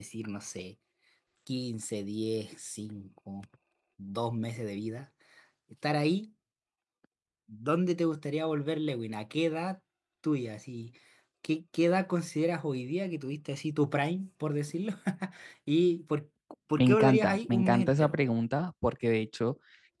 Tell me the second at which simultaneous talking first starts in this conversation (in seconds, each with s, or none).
16.8 s